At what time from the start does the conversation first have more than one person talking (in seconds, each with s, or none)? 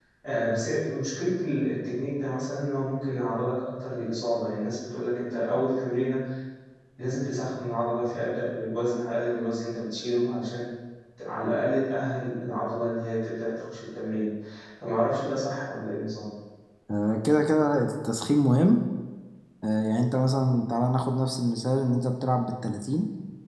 none